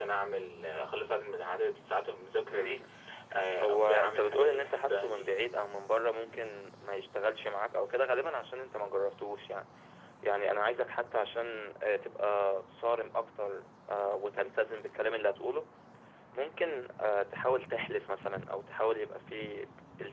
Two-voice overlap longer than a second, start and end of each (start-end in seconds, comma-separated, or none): 3.6-5.3